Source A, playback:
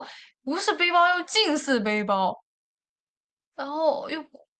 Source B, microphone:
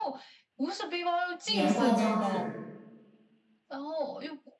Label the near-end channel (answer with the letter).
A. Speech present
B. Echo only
A